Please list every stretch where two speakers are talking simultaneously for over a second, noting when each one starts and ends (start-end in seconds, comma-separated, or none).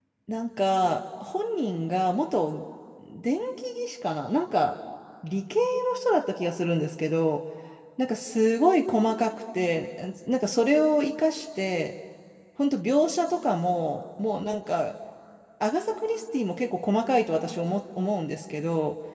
none